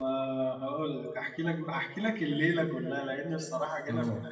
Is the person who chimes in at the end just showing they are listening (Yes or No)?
Yes